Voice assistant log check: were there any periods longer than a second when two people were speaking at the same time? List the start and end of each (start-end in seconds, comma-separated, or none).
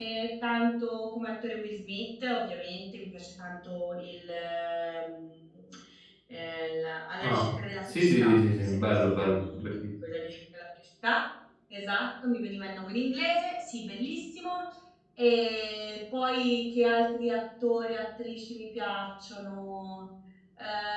7.9-9.7